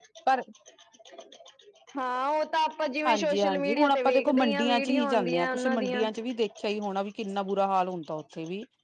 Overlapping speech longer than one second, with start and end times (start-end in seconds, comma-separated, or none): 3.1-6.0